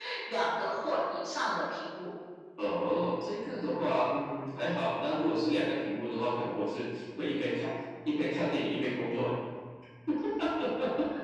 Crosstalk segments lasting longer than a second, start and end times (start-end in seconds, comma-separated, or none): none